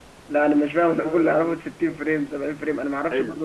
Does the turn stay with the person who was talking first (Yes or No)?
No